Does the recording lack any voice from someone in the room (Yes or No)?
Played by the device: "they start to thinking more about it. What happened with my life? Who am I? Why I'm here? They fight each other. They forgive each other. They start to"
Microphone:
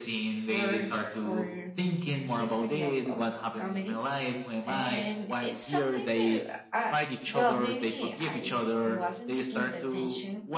No